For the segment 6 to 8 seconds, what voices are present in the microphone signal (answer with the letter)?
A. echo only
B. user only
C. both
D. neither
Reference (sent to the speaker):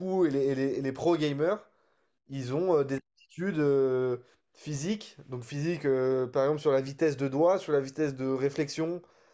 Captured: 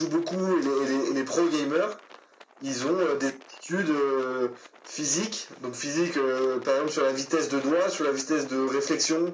A